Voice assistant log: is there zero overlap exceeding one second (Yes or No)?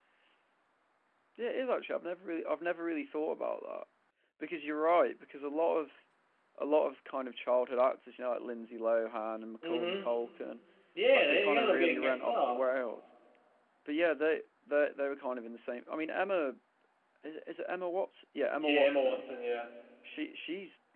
No